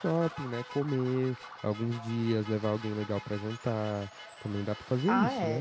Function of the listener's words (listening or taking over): taking over